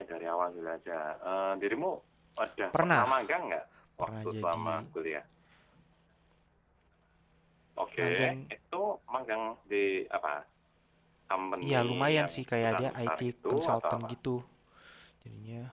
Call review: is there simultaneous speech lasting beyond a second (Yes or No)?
Yes